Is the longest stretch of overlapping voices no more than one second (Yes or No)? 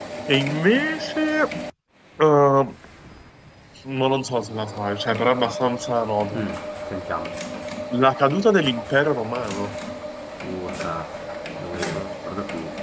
Yes